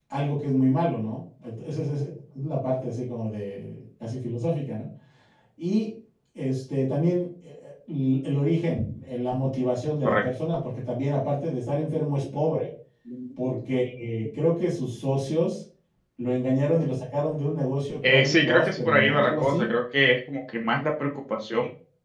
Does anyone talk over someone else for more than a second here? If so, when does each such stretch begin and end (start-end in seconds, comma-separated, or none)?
18.0-19.7